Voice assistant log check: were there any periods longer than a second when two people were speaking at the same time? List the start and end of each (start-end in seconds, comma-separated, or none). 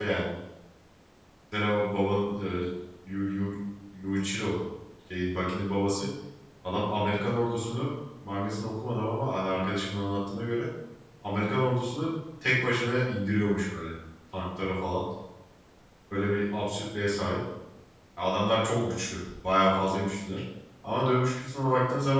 none